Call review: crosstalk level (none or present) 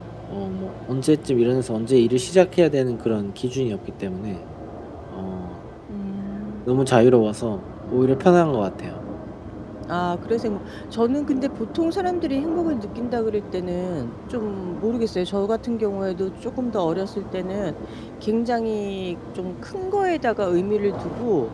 none